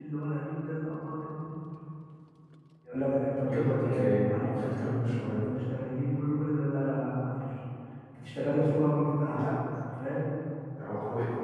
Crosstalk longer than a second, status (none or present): present